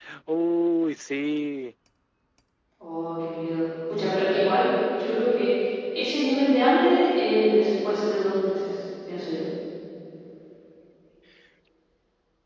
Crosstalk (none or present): none